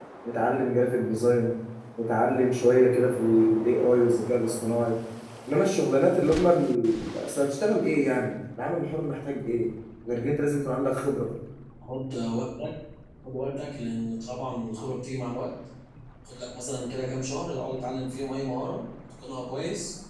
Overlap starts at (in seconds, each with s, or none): none